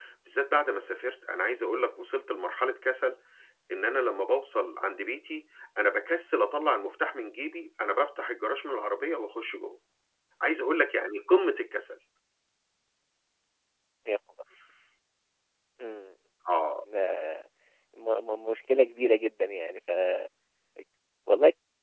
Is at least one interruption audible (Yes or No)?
No